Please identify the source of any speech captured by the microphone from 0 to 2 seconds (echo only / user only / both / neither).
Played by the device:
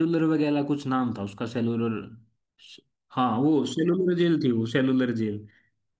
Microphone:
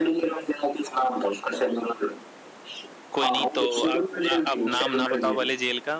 echo only